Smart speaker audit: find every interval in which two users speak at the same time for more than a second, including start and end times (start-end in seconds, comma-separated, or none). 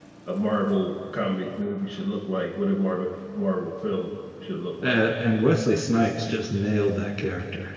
none